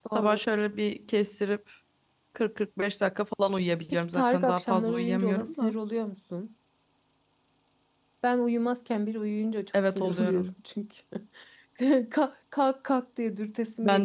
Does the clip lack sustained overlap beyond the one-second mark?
No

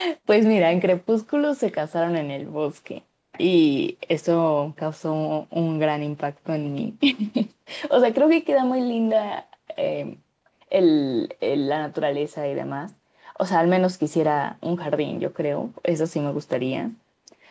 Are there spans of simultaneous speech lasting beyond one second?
No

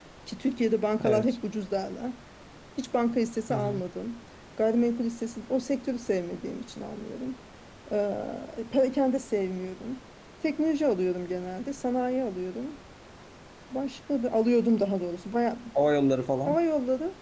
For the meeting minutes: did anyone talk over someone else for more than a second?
No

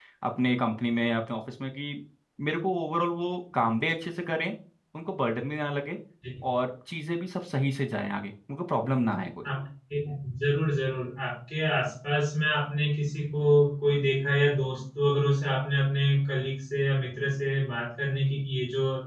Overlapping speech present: No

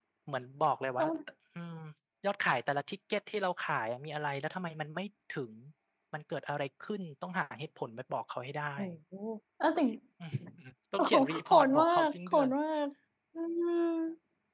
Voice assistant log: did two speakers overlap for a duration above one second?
Yes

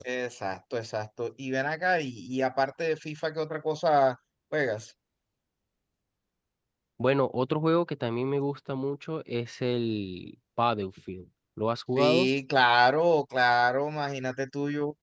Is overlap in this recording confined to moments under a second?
Yes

